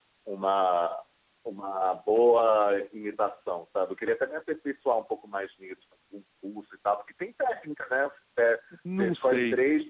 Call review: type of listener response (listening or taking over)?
listening